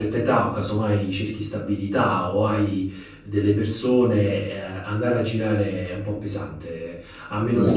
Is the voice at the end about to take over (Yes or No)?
No